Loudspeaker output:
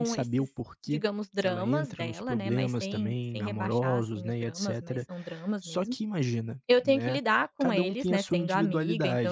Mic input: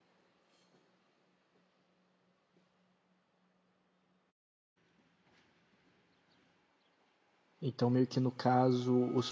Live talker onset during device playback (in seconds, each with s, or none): 7.6 s